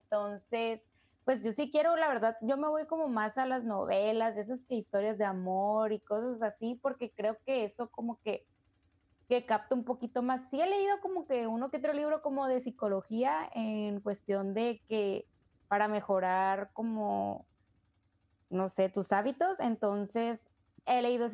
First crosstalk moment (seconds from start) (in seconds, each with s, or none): none